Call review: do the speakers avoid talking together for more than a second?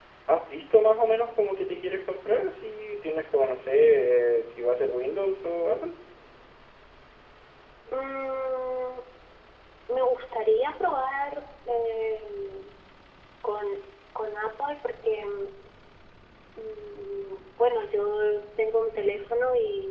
Yes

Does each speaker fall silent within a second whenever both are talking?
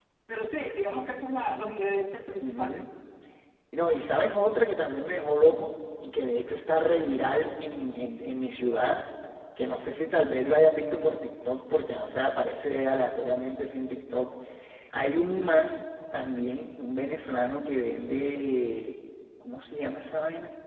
Yes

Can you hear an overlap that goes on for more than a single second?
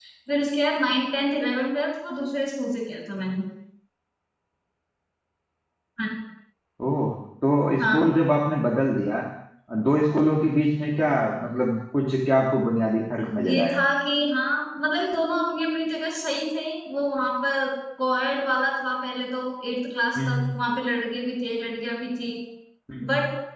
No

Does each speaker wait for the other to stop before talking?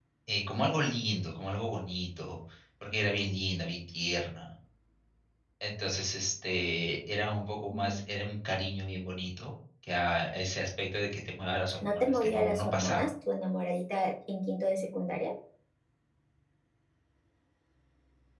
No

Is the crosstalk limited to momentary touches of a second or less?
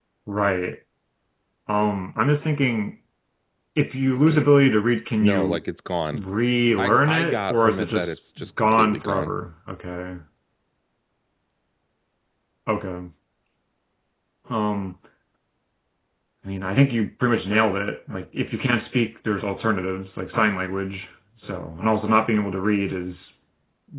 No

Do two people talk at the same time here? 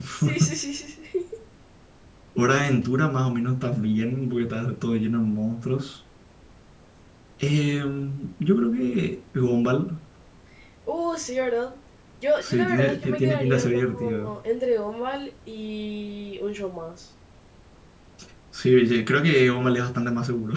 Yes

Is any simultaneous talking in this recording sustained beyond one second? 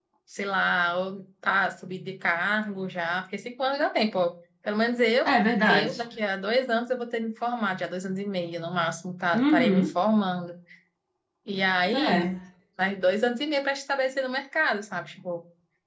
No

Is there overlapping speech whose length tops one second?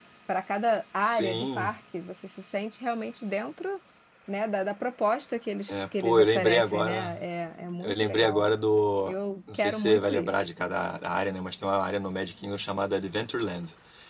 Yes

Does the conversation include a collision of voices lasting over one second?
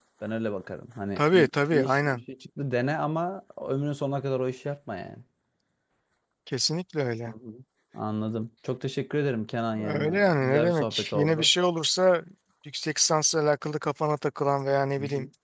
Yes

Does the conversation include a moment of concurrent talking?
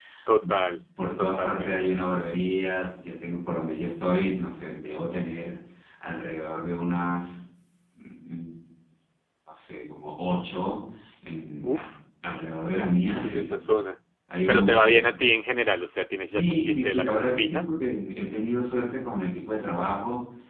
Yes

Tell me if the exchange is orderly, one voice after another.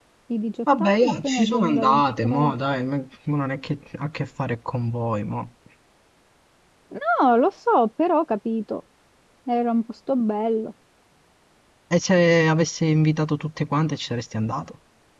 No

